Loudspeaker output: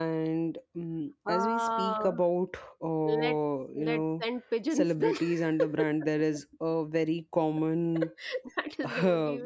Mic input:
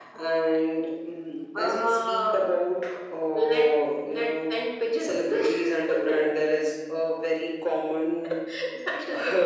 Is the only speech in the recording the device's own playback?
Yes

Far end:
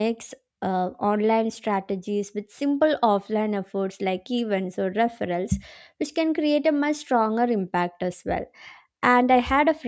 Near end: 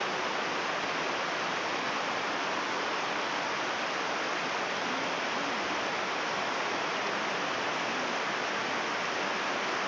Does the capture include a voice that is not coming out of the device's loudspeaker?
No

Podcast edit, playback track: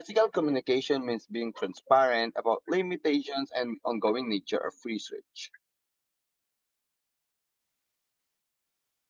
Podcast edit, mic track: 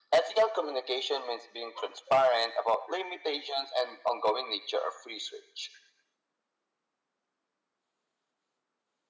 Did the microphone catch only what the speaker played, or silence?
Yes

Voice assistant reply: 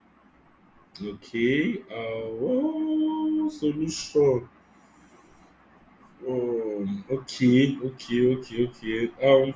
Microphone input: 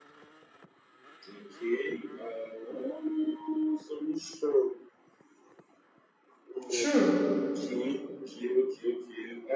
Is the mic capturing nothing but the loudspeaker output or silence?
No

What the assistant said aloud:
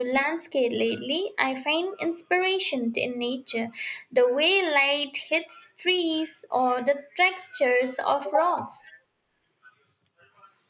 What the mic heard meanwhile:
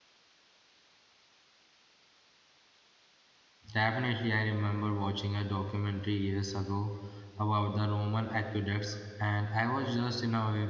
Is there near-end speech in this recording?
Yes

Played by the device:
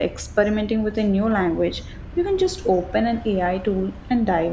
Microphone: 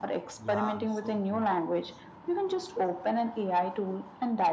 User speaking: Yes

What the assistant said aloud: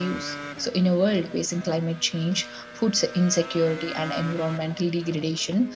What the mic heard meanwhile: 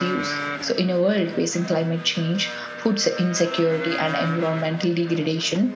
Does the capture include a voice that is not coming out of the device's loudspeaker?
No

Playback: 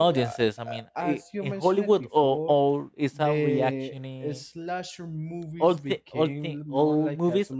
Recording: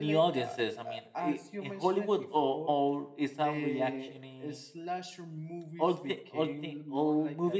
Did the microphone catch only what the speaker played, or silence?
Yes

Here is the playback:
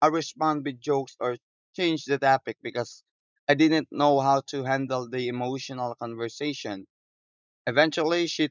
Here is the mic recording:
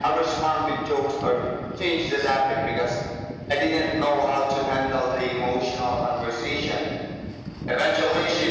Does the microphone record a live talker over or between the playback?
No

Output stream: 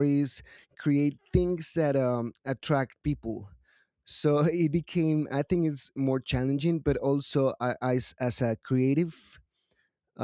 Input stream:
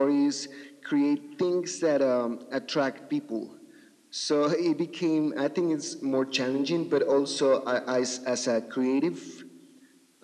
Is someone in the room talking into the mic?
No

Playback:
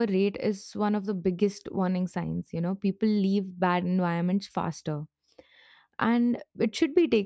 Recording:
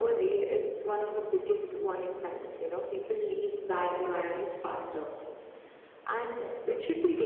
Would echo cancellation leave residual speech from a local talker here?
No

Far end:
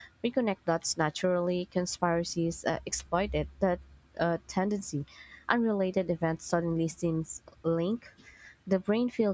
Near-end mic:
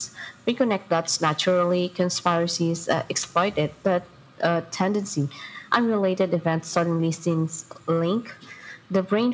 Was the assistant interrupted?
No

